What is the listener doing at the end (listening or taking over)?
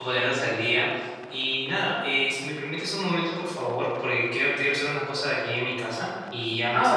taking over